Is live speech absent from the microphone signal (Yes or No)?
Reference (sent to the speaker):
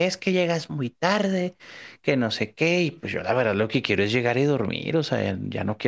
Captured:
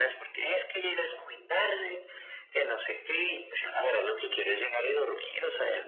Yes